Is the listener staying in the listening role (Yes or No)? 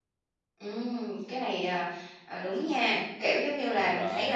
Yes